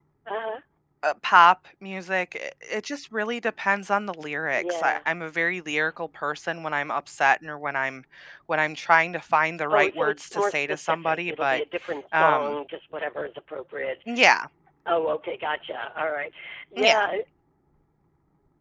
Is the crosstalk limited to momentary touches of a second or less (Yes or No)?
No